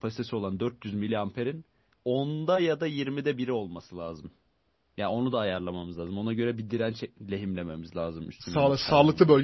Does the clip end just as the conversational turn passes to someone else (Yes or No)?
Yes